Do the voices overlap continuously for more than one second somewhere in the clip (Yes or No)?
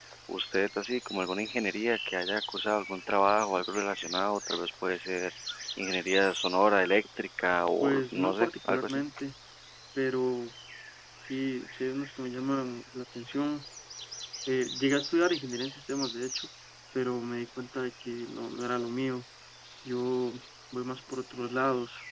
Yes